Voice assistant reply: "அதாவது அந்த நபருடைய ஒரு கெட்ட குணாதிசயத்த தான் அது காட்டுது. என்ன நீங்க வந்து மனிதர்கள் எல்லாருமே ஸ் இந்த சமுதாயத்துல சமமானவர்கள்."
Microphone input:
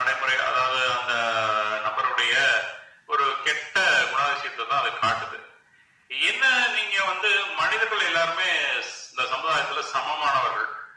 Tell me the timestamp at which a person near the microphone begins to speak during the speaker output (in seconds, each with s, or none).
none